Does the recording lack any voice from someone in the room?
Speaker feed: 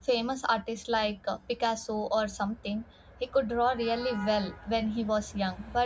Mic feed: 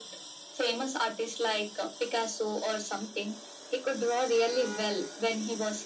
Yes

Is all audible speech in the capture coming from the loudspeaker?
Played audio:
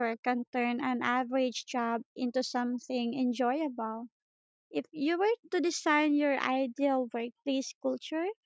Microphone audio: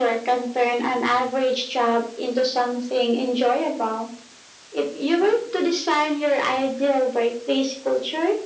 Yes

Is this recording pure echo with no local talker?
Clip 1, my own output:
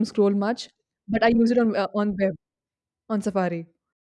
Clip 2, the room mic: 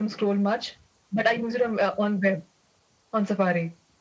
Yes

